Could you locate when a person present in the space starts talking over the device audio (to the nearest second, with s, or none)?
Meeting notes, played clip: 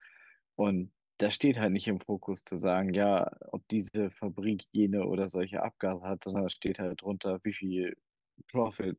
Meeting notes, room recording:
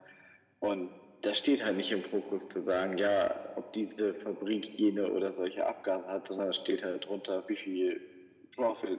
none